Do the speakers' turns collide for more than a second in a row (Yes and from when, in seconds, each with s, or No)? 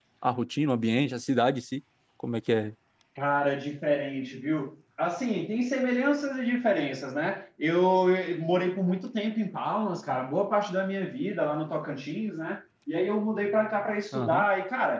No